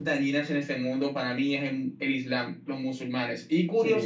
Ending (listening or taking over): listening